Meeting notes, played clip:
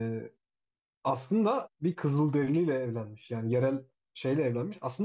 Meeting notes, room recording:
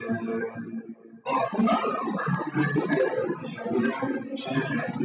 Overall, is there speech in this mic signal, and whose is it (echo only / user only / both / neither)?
echo only